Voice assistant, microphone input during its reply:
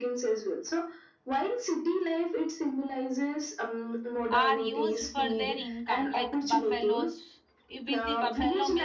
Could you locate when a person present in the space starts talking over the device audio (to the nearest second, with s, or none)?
4 s